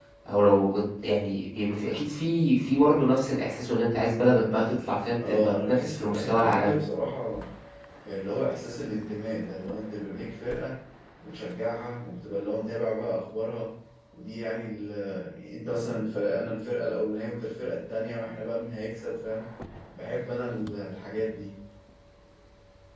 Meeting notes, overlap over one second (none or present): present